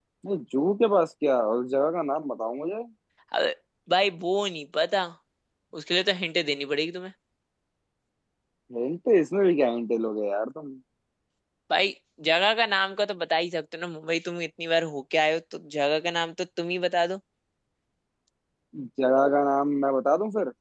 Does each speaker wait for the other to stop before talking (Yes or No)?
Yes